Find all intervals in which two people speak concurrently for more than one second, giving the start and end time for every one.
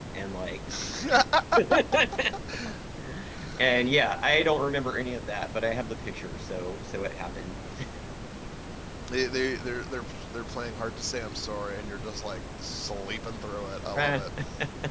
none

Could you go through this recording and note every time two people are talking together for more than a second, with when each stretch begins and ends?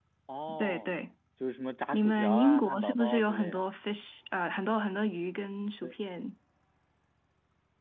1.9-3.6

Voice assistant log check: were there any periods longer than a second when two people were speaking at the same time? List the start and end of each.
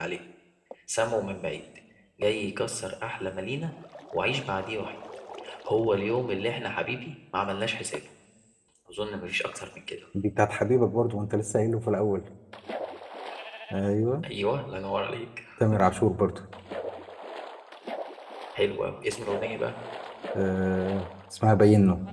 none

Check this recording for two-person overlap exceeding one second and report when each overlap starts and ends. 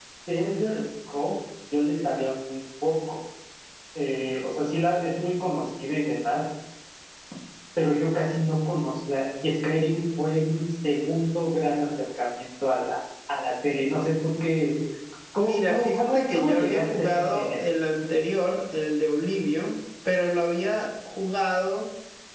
15.4-17.6

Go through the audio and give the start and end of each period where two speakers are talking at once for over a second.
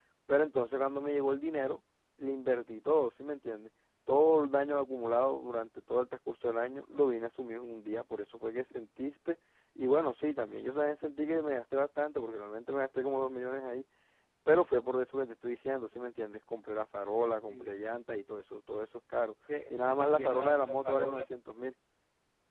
19.7-21.3

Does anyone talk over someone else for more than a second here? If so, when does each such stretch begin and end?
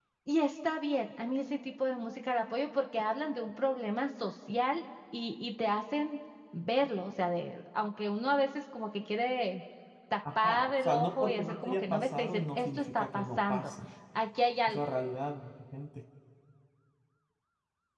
10.4-13.7

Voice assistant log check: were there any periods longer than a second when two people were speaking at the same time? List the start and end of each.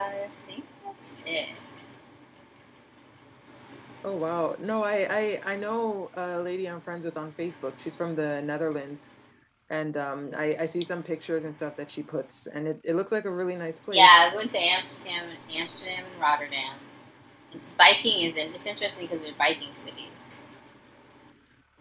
none

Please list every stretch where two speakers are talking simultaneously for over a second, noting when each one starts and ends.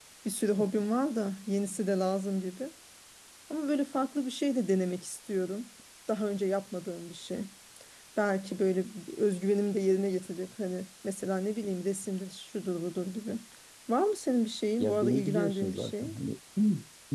14.8-16.1

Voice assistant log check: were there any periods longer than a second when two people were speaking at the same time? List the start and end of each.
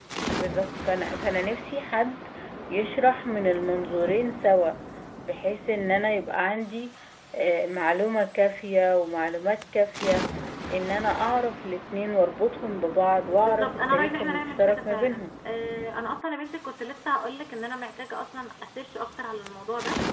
13.4-15.3

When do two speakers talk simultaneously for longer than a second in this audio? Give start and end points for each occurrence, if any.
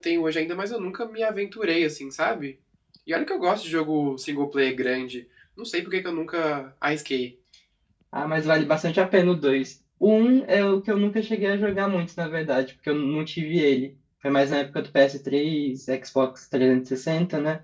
none

